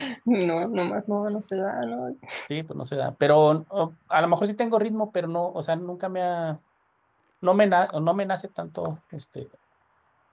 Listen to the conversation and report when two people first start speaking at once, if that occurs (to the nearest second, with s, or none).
none